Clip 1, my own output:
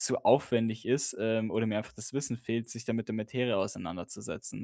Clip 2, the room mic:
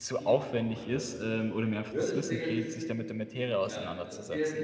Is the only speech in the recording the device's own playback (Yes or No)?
No